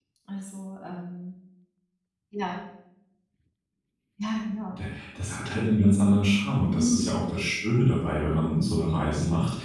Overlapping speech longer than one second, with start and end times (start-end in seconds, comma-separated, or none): none